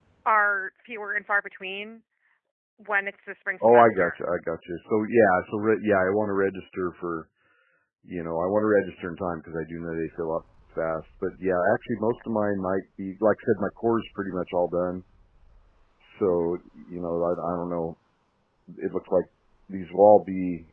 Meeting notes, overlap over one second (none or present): none